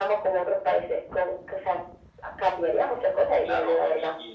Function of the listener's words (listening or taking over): taking over